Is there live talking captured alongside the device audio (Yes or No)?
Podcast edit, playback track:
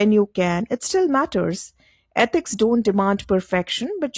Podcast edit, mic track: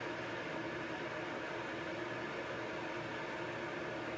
No